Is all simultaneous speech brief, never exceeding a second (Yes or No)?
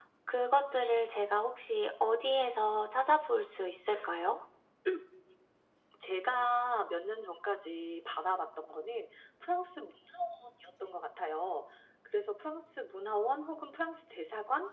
Yes